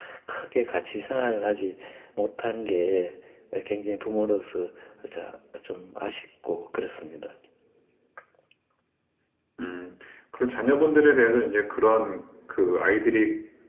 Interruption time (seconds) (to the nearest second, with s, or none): none